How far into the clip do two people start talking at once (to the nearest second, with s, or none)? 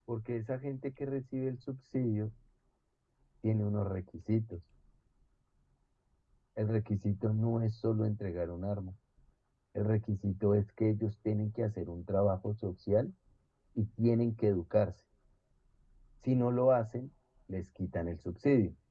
none